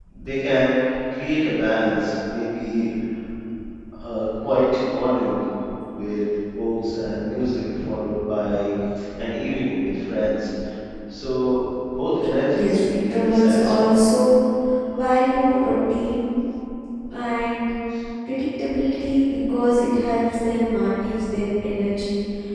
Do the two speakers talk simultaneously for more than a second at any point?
Yes, from 12.5 s

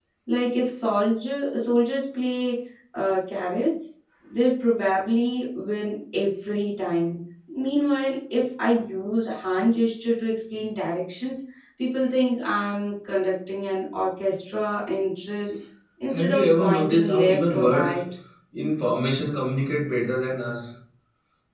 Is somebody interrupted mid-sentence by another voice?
Yes, from 16.1 s

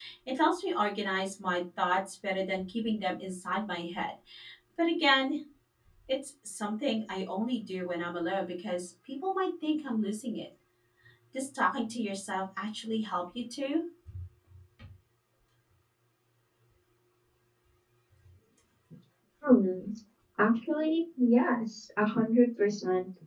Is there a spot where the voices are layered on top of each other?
No

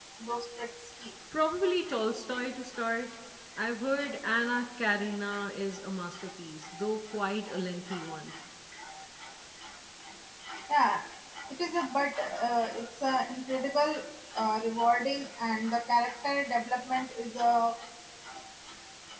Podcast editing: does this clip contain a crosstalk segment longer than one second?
No

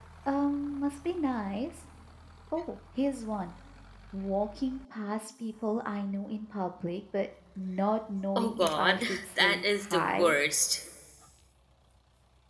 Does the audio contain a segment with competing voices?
Yes, from 8.4 s

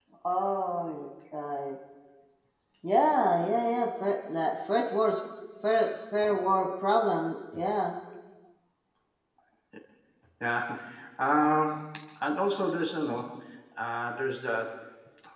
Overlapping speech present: No

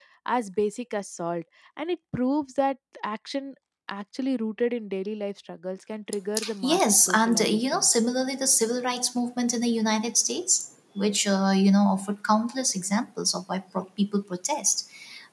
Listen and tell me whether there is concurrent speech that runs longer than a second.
Yes, from 6.6 s

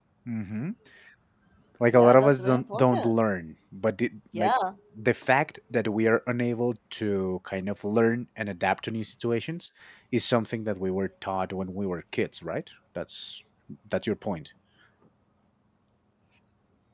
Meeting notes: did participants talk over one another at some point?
Yes, from 1.9 s

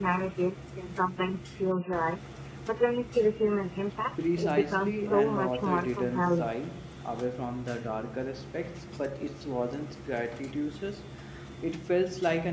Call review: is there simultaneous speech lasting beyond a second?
Yes, from 4.2 s

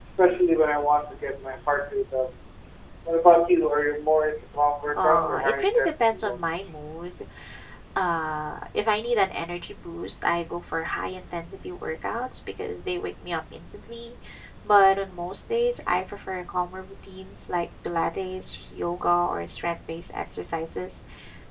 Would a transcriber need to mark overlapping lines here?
Yes, from 5.0 s

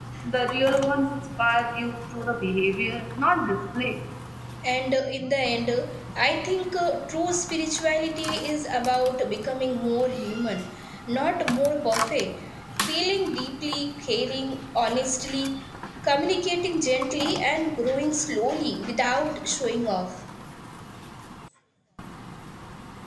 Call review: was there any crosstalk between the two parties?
No

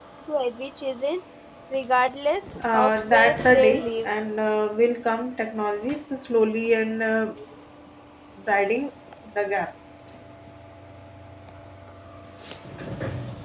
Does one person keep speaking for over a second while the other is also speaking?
Yes, from 2.6 s

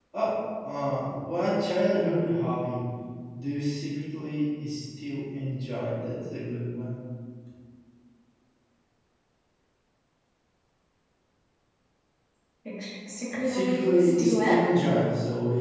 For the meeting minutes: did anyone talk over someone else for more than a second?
Yes, from 13.4 s

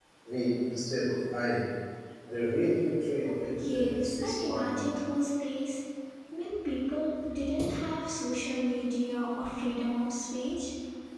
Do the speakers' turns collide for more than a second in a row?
Yes, from 3.4 s

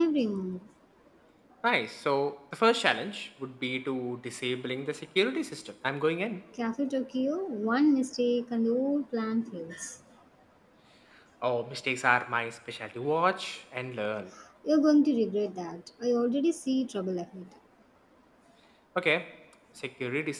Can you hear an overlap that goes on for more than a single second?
No

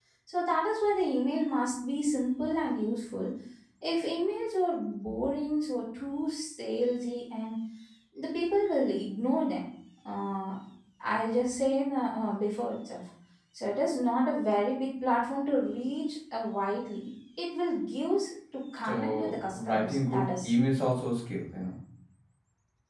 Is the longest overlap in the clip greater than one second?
Yes, from 18.8 s

